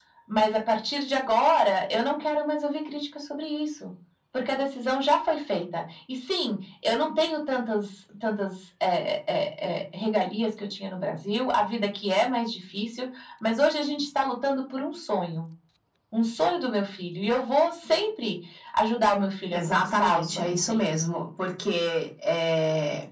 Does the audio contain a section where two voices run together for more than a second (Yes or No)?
Yes